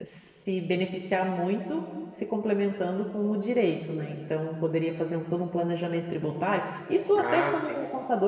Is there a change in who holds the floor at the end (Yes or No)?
No